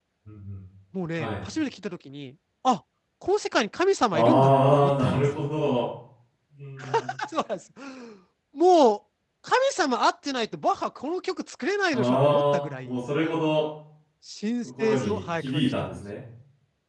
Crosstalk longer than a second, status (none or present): present